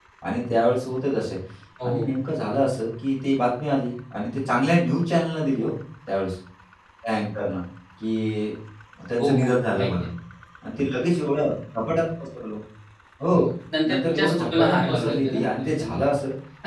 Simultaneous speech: Yes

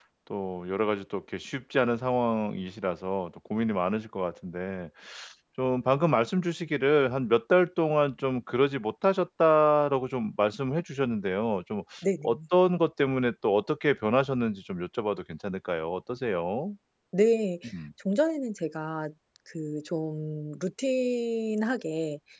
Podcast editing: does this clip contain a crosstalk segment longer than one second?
No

